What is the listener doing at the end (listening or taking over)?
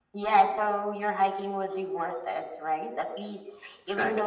listening